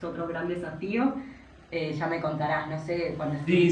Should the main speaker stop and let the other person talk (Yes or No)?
Yes